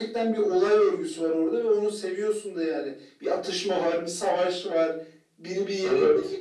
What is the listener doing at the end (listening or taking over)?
listening